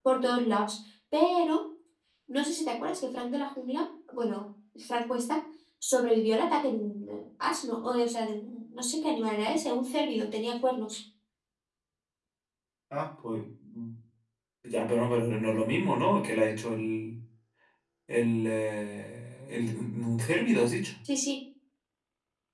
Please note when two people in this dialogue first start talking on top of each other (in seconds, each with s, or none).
none